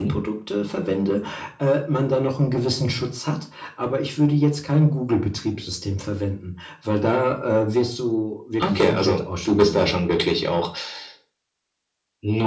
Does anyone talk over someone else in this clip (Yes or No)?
Yes